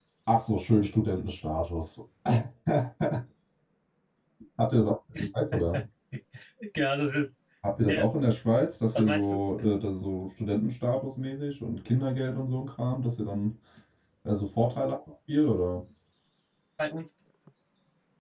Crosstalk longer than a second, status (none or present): none